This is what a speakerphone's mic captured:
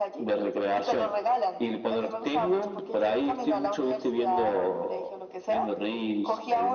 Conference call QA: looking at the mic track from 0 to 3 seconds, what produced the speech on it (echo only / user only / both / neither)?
echo only